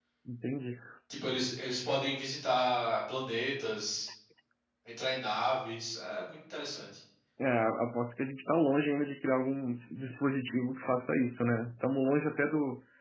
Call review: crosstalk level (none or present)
none